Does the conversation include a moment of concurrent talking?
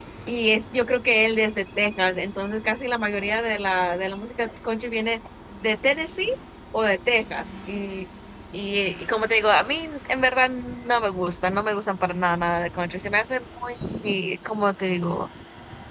No

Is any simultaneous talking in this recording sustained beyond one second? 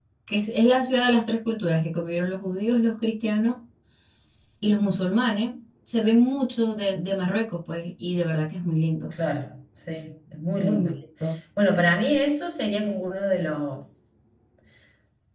No

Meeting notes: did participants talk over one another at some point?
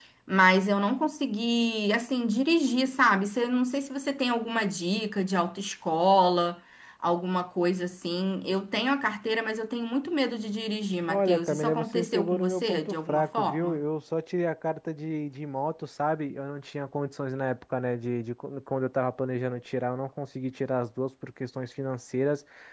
Yes, from 11.1 s

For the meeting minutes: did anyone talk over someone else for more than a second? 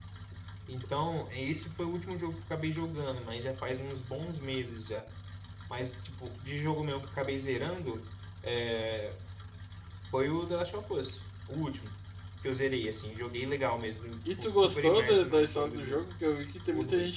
Yes, from 14.2 s

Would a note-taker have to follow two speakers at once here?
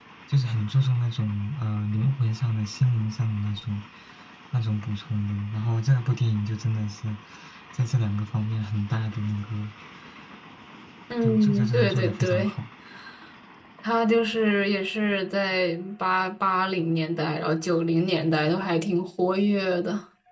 Yes, from 11.2 s

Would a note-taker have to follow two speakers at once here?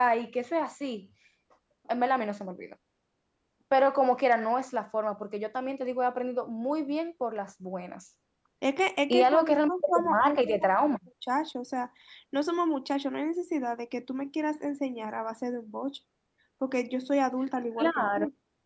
Yes, from 9.1 s

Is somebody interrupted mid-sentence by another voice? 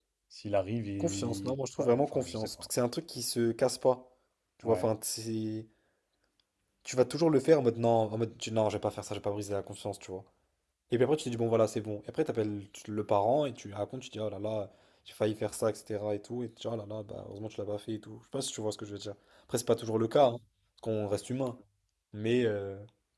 Yes, from 1.0 s

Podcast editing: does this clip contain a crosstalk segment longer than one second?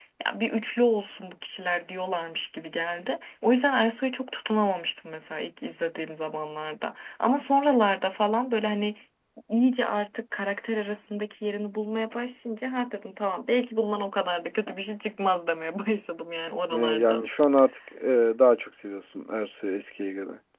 No

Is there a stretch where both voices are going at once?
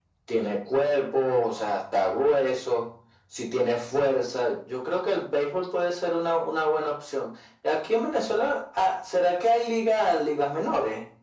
No

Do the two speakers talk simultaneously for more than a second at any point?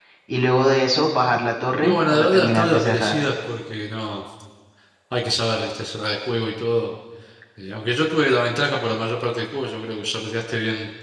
Yes, from 1.8 s

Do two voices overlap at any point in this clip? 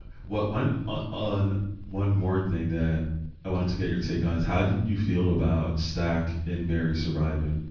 No

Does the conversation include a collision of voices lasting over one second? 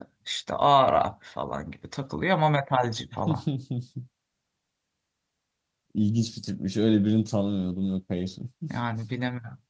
No

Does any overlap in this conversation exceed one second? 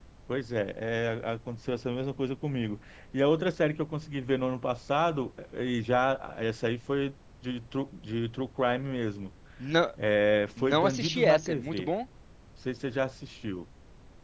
Yes, from 10.6 s

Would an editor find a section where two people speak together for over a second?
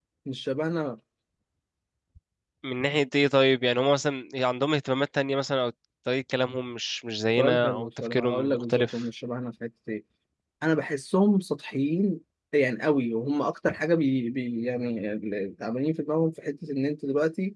Yes, from 7.4 s

